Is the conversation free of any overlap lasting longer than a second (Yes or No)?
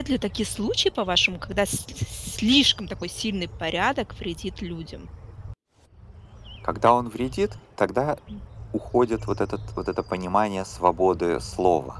Yes